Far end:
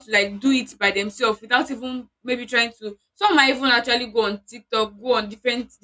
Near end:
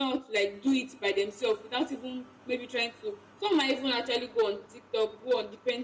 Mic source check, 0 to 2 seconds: echo only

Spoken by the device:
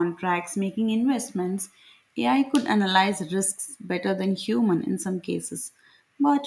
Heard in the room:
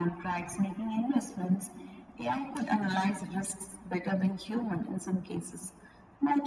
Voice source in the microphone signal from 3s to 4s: echo only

